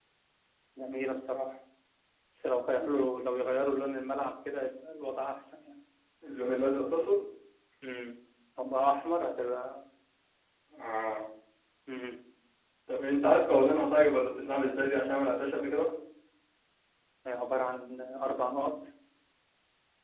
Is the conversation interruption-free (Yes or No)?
Yes